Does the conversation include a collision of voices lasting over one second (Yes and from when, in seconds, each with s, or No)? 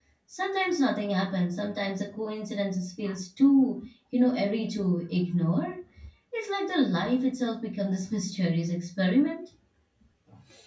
No